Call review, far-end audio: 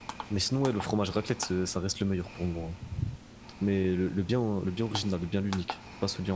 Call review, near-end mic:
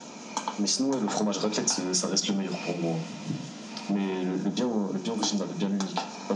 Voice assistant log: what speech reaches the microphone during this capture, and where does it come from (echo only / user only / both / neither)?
echo only